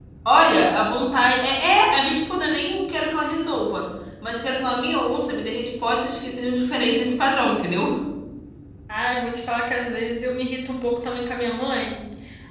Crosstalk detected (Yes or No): No